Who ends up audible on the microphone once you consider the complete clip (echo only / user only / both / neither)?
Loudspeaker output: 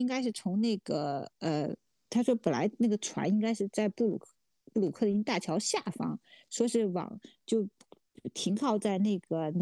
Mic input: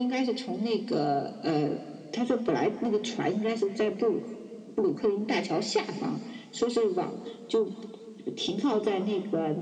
echo only